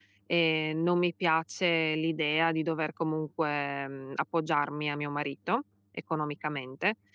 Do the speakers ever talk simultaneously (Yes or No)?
No